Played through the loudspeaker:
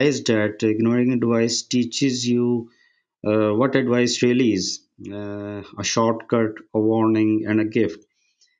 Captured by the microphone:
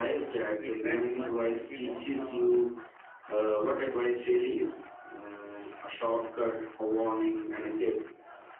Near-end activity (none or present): present